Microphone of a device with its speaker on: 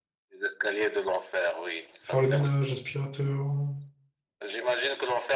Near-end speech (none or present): present